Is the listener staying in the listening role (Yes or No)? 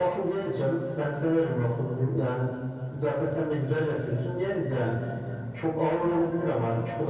Yes